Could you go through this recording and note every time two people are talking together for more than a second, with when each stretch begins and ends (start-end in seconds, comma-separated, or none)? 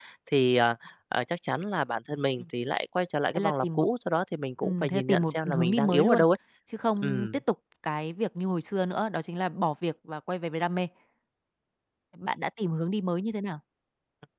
4.6-6.2